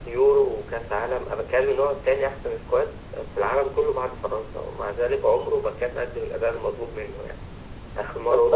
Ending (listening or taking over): listening